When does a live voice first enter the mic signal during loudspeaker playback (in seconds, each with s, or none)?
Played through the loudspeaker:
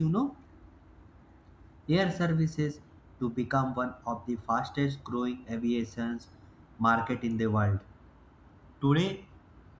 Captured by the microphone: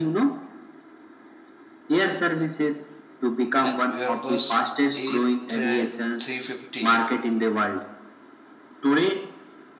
3.6 s